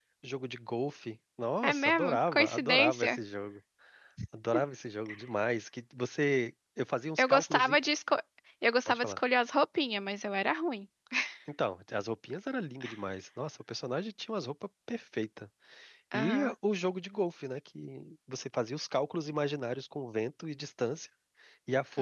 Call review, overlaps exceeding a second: present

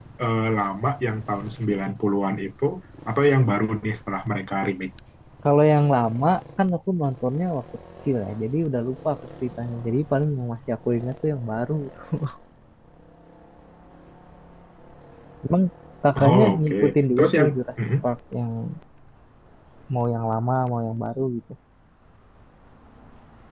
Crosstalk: present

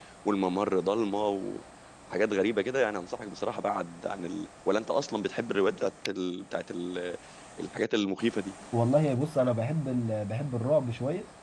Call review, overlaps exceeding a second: none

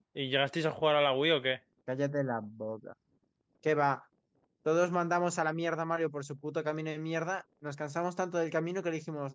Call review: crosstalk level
none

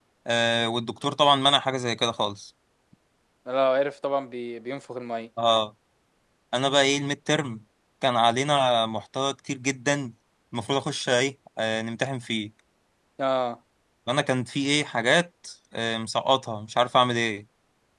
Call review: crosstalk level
none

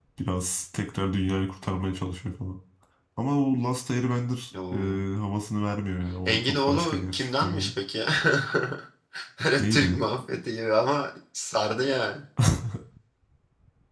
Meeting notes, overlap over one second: present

